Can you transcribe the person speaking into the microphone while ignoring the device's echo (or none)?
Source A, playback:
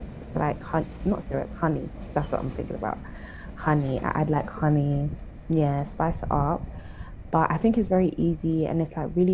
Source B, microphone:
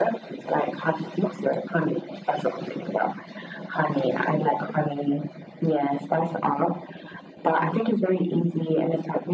none